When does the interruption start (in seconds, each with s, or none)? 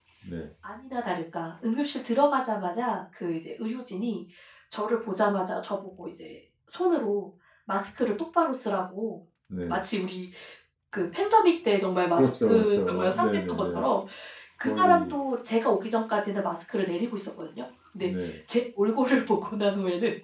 12.2 s